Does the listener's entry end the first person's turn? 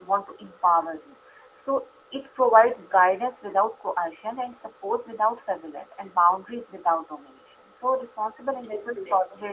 No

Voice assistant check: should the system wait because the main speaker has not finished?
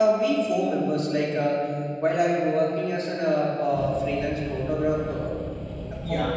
Yes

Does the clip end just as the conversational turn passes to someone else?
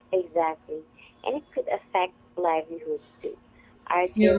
No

